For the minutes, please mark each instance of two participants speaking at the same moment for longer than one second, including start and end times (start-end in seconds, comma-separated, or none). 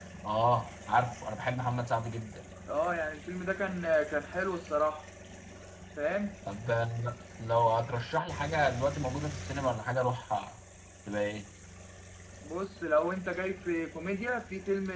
none